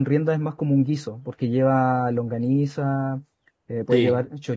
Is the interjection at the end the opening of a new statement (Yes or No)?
No